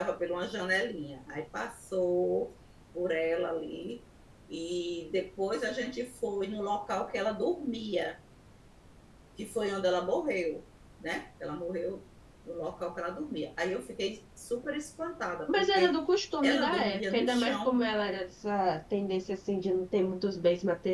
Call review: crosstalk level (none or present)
present